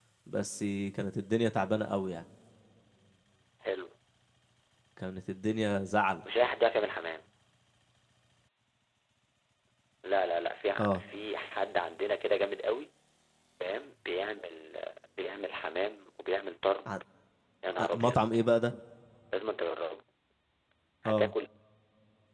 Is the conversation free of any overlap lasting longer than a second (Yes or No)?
Yes